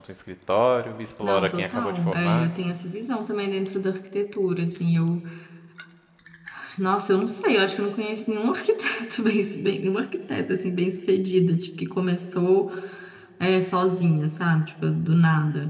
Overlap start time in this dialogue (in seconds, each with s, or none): 1.2 s